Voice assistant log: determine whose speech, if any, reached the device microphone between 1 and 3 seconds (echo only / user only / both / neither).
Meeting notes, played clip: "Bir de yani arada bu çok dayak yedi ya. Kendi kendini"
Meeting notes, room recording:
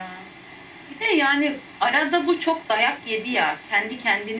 echo only